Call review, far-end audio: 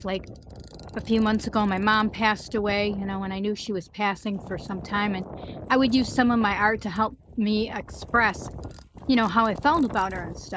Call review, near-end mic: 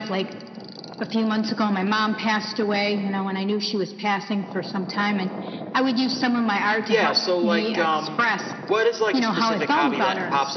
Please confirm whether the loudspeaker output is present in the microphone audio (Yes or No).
Yes